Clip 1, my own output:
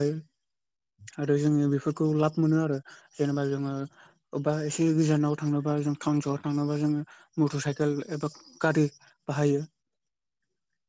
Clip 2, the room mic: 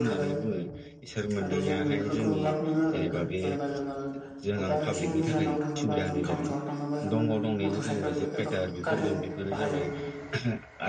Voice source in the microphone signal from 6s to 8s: both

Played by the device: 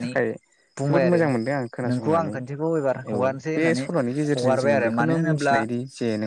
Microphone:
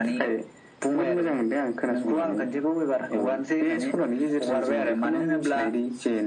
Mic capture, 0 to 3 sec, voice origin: echo only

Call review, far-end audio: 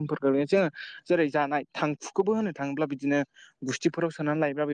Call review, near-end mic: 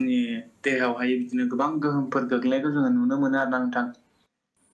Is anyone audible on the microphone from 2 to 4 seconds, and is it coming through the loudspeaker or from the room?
user only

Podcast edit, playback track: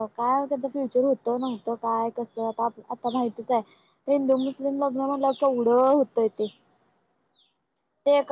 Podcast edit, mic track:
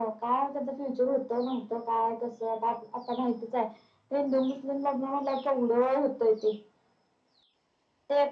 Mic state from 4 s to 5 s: echo only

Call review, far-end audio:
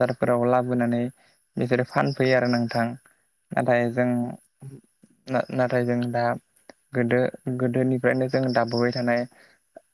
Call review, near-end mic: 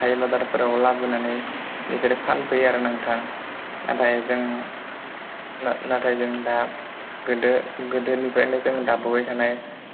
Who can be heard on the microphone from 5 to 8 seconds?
echo only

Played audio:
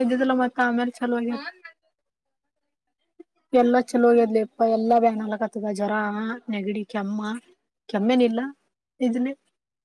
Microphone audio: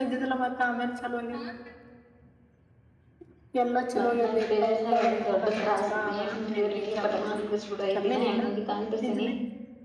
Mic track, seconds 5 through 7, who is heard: both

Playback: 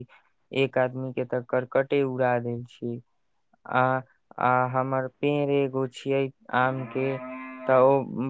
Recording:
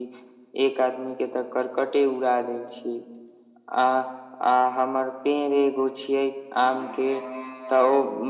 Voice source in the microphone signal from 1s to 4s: echo only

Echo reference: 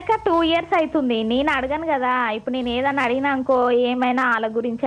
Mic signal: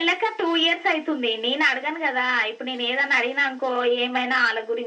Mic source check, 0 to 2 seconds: echo only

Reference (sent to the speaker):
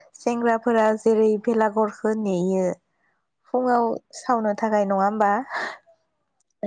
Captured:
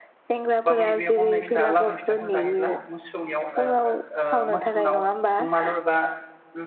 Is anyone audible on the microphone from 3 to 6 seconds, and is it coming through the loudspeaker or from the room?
both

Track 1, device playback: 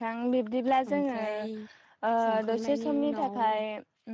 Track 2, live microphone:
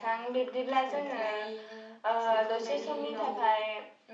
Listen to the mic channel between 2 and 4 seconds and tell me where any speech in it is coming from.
both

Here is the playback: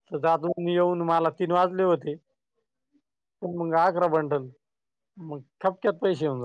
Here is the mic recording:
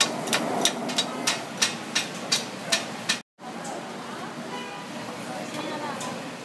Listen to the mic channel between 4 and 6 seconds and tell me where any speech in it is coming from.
neither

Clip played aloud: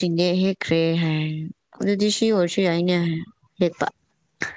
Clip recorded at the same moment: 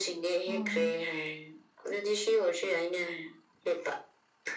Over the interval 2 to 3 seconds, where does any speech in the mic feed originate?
echo only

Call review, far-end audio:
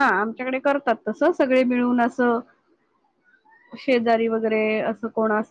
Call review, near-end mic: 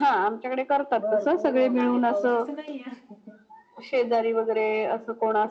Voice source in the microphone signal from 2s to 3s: both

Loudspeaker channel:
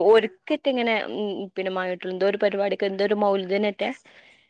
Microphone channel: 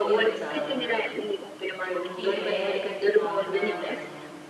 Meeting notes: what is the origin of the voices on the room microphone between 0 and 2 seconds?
both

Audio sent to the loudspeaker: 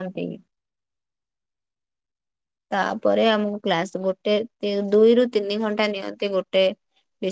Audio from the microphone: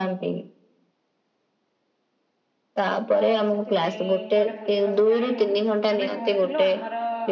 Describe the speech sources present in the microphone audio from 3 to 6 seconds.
both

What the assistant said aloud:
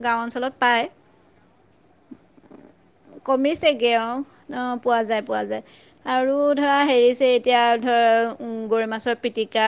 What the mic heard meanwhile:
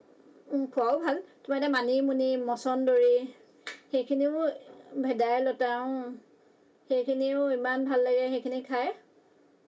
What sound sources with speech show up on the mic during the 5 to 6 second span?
user only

